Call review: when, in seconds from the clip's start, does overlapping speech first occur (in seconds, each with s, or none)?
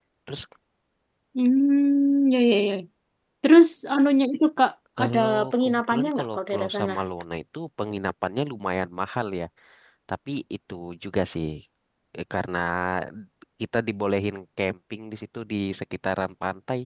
5.0 s